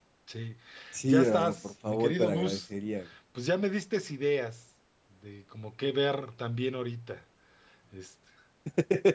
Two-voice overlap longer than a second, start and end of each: 1.1-2.6

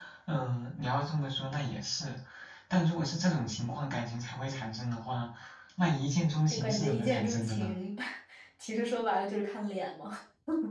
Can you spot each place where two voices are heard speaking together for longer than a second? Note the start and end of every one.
6.5-7.7

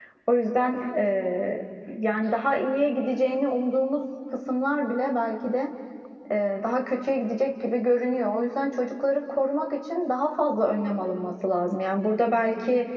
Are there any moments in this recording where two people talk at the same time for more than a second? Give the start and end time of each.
none

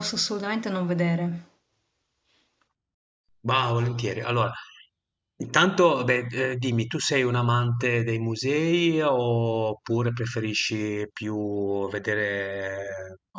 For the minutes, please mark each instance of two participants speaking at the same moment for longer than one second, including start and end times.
none

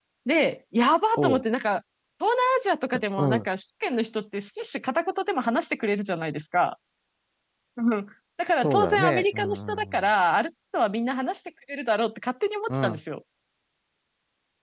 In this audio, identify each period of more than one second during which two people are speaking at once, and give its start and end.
8.6-10.0

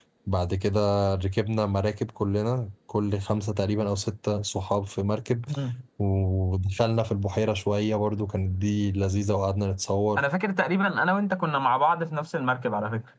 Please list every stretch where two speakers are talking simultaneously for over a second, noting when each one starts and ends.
none

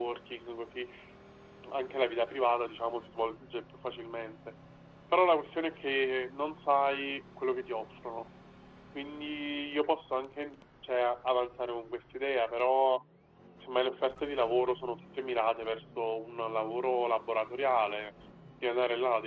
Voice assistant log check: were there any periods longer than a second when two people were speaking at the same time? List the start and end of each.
none

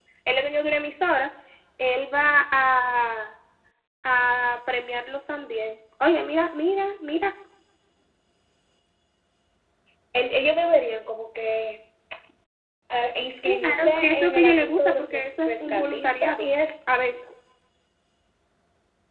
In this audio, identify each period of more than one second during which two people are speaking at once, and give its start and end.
13.6-16.4

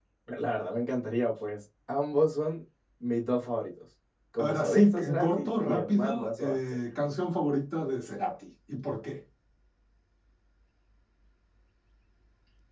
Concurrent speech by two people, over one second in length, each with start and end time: 4.4-6.8

